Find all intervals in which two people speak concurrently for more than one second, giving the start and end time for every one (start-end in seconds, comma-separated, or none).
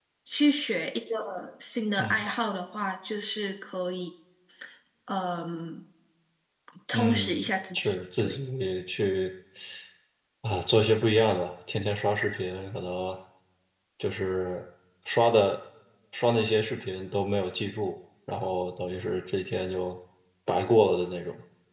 6.9-8.4